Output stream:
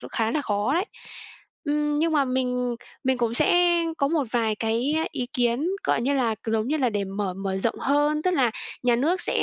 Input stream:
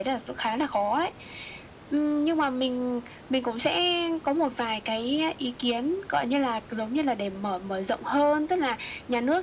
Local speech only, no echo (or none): none